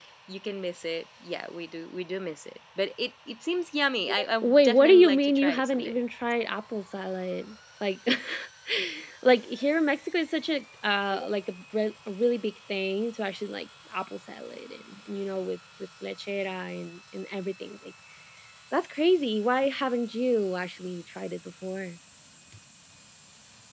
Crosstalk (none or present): present